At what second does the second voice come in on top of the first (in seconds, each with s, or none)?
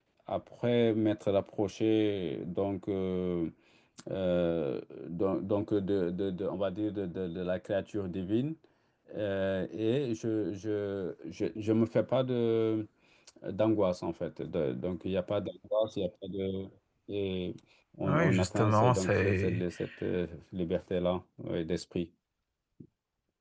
18.0 s